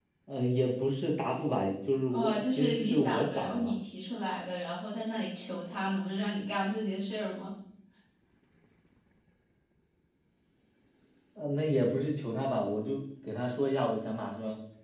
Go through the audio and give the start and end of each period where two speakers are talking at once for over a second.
2.1-3.7

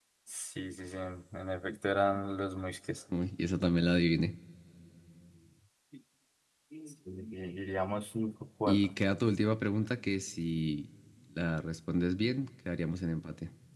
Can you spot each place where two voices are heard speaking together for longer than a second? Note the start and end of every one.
none

